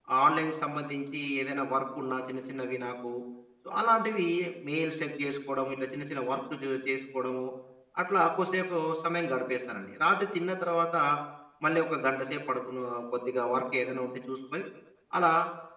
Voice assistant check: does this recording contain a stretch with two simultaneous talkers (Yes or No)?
No